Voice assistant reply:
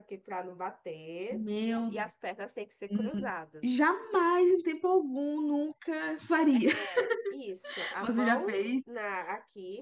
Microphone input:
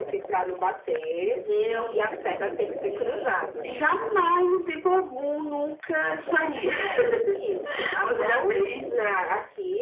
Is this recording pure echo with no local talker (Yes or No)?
Yes